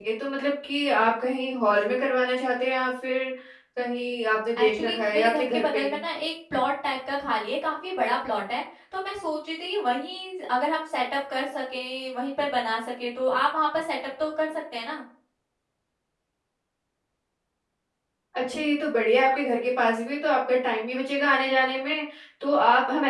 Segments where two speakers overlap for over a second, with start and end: 4.6-6.0

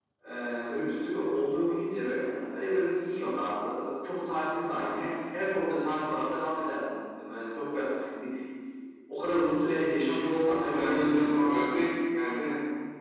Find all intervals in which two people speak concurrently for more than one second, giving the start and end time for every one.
10.6-11.8

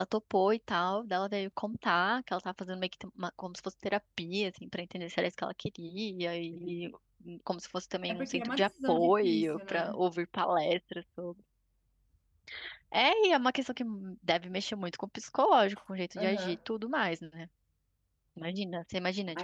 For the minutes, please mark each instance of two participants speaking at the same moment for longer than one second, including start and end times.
8.1-10.0

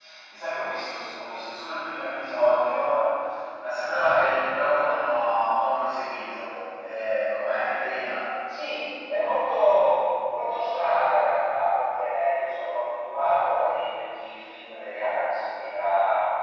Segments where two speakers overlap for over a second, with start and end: none

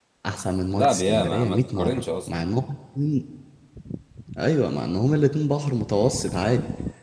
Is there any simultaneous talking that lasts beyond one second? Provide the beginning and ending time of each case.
0.7-2.5

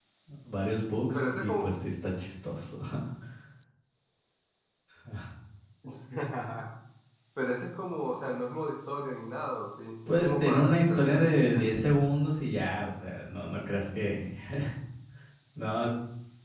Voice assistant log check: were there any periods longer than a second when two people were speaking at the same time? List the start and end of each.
10.2-11.6

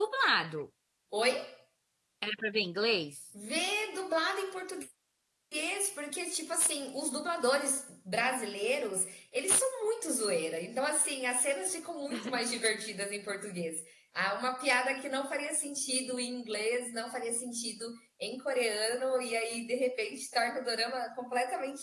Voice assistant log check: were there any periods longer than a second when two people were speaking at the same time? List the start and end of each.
none

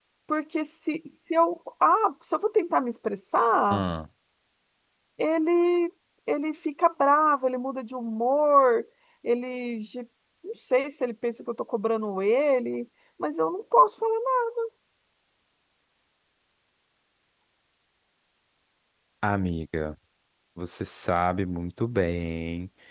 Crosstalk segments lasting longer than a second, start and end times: none

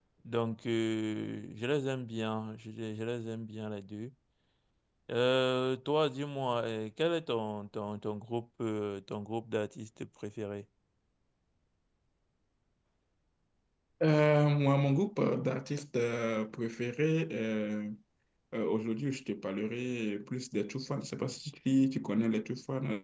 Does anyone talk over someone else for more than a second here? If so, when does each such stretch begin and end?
none

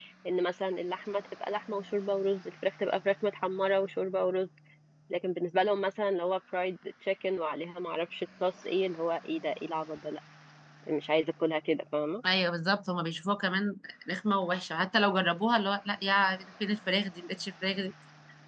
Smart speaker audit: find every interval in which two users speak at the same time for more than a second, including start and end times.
none

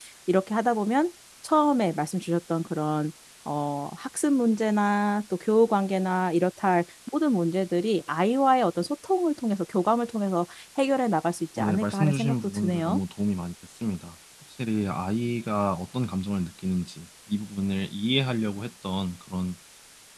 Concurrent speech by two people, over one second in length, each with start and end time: 11.6-13.0

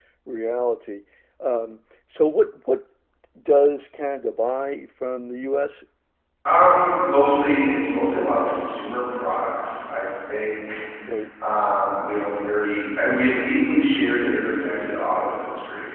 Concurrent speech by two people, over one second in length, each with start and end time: none

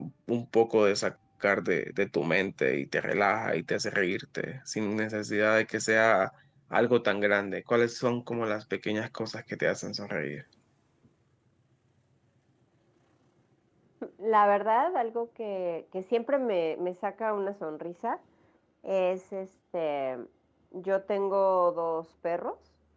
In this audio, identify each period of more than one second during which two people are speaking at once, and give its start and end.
none

